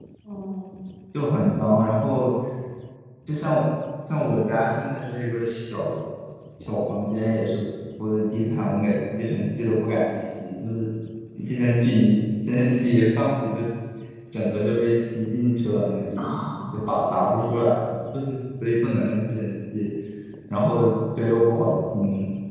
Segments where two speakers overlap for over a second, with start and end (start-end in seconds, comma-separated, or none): 16.2-17.4